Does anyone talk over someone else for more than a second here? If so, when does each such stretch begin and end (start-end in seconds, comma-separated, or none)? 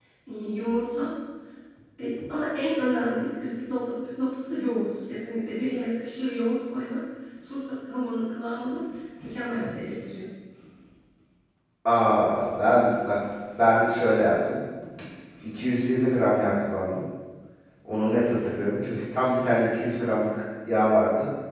none